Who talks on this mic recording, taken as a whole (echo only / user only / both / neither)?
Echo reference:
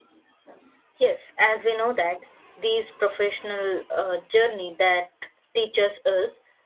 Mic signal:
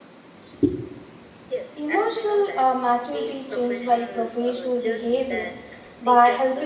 both